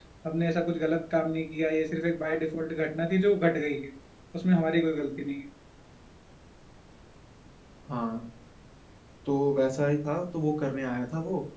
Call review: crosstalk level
none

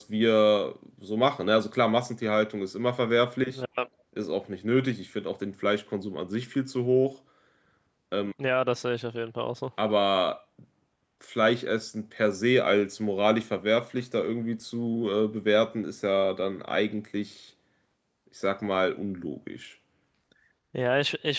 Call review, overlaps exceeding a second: none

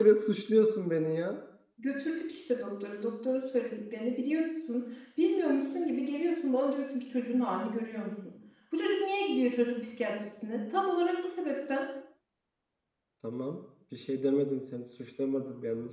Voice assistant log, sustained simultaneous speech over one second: none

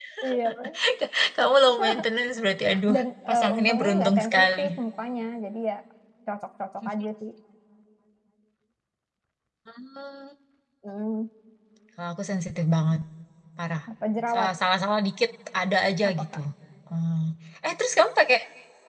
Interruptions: present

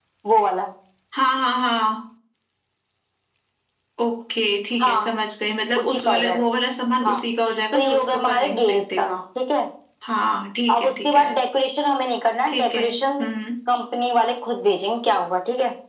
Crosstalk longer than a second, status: present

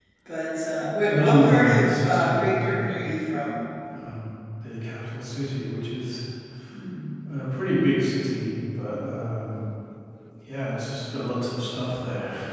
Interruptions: present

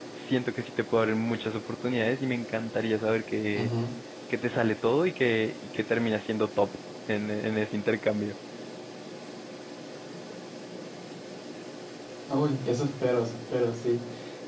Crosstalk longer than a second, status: none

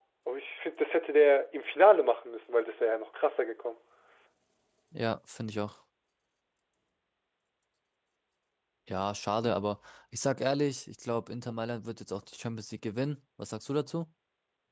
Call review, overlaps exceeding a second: none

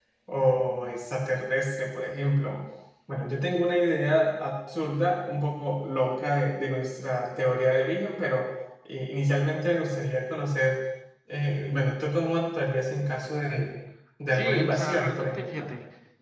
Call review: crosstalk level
present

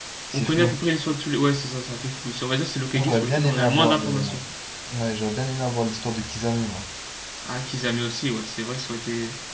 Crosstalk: present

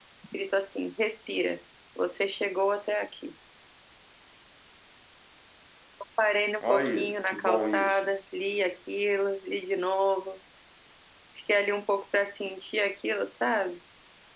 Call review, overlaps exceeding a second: present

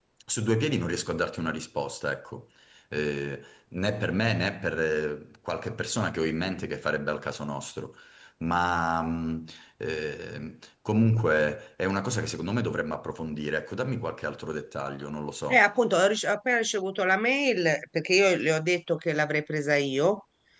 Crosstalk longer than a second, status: none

